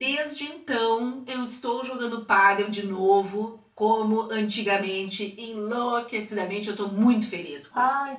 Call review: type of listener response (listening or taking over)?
taking over